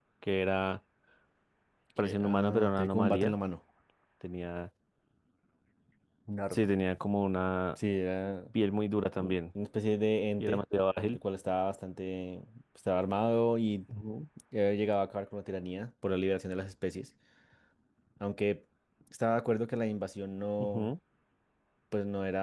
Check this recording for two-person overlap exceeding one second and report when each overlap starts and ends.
2.0-3.3

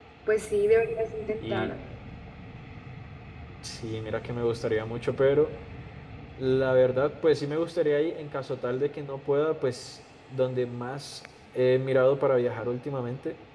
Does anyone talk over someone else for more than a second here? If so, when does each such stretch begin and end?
none

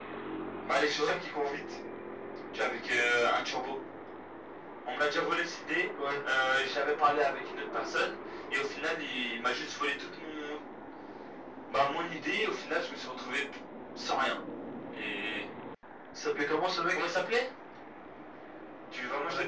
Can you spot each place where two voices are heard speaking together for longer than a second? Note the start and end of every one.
none

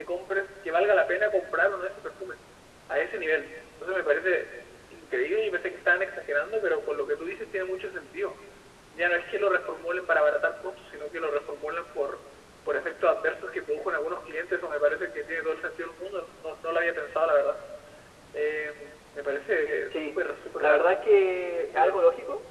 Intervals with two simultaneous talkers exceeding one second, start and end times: none

